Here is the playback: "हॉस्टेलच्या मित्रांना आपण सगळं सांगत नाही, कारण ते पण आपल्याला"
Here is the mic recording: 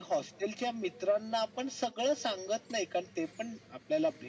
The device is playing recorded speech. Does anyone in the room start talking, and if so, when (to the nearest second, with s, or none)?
none